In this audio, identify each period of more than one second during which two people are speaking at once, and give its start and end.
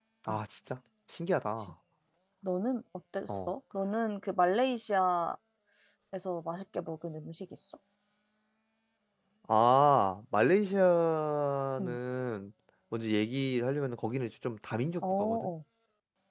none

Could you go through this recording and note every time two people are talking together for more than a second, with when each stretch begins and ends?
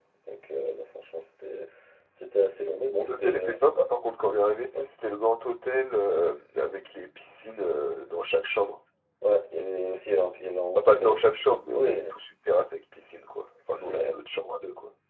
none

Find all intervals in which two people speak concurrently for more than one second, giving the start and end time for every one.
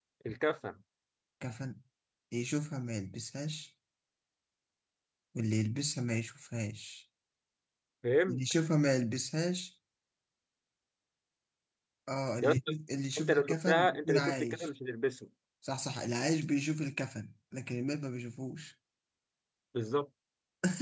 13.2-14.7

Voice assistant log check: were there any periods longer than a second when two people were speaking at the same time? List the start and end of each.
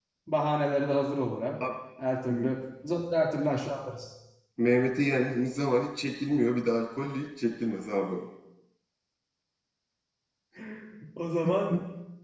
none

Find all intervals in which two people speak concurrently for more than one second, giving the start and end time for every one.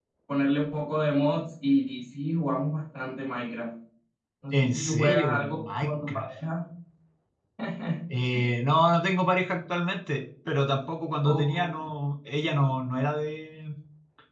4.5-6.3

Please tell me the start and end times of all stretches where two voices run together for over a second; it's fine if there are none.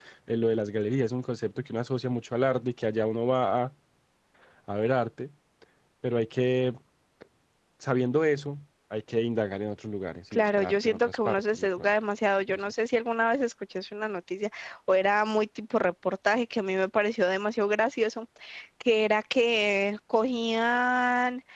10.3-11.9

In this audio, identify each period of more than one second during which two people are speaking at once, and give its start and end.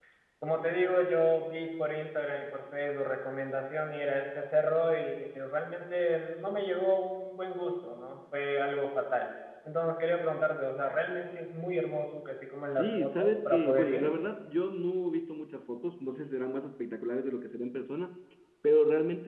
12.7-14.1

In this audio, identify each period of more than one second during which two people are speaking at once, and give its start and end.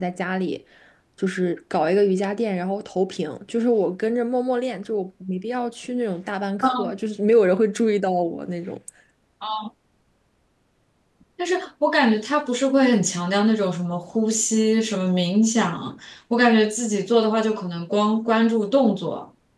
none

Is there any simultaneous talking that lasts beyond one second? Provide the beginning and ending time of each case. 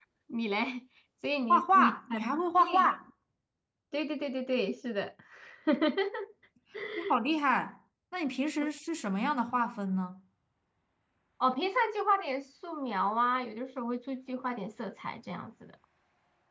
1.5-2.9

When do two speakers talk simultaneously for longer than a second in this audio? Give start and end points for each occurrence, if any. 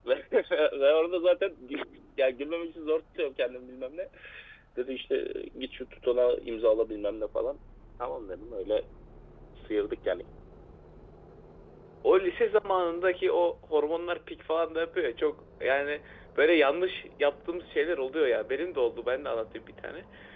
none

